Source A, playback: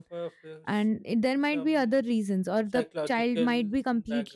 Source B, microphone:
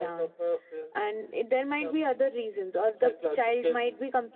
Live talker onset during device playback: none

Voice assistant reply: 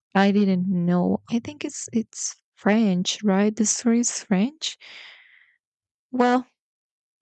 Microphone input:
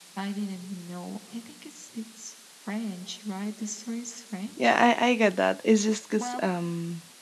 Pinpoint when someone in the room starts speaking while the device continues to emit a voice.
4.6 s

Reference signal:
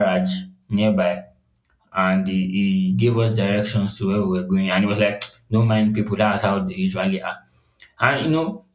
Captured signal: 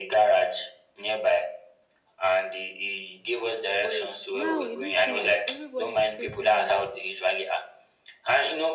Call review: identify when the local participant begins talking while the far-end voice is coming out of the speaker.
3.8 s

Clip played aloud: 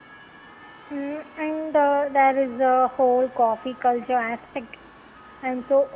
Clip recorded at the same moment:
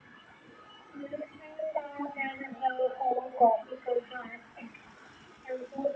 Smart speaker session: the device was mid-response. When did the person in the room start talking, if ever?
none

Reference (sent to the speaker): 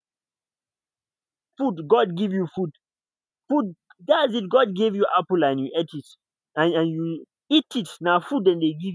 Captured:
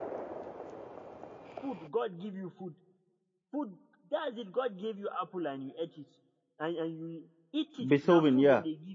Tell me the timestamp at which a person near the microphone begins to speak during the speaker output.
7.8 s

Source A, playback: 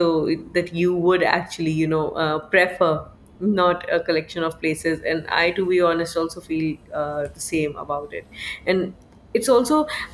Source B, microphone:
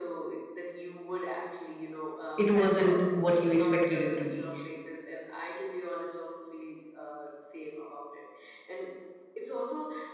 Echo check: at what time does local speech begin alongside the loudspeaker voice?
2.4 s

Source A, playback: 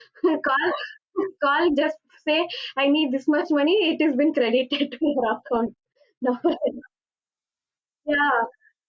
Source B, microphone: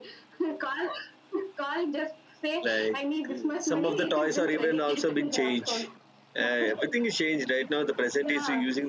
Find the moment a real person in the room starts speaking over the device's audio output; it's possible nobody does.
2.6 s

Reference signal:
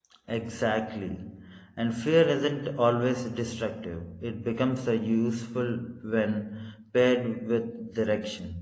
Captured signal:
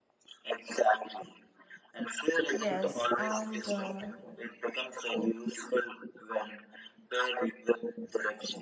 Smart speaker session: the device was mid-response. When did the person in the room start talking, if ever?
2.5 s

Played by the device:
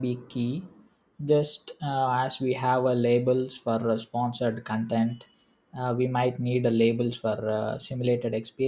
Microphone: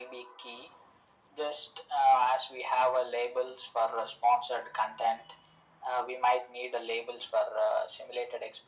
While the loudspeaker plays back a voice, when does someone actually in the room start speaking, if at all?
none

